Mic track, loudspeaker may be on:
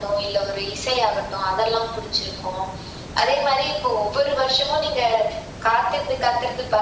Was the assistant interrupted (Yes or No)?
No